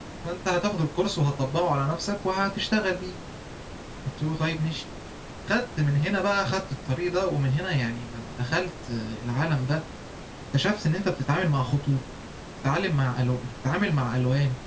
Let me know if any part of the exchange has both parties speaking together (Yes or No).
No